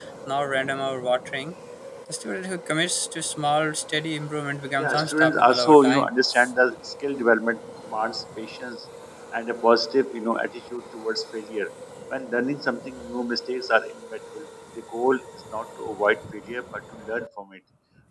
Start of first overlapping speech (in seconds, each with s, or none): 4.8 s